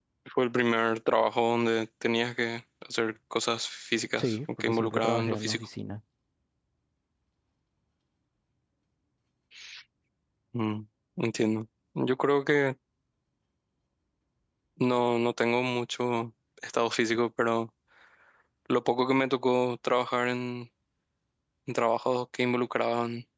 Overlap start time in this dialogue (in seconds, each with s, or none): 4.2 s